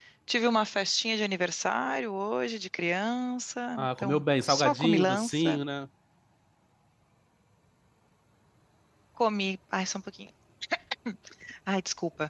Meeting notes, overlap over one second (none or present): present